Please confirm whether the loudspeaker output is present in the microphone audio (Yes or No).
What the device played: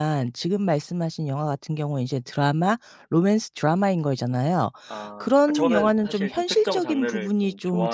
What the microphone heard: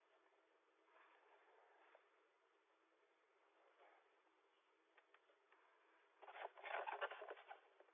No